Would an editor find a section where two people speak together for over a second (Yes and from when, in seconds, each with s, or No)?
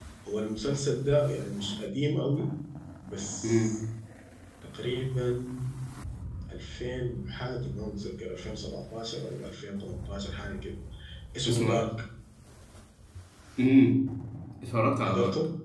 No